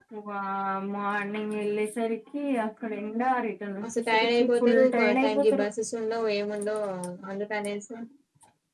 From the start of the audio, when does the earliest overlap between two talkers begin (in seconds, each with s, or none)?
3.8 s